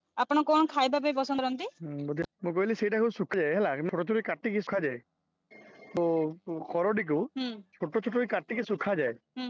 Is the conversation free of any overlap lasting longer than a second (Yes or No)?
Yes